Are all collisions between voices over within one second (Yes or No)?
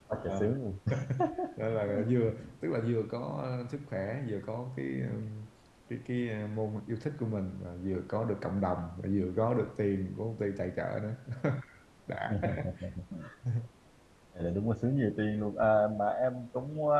Yes